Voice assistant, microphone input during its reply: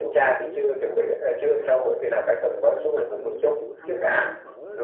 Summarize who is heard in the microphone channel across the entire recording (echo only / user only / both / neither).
both